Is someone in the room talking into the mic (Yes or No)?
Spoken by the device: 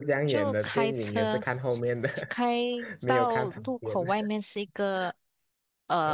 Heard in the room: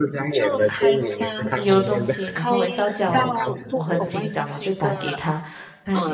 Yes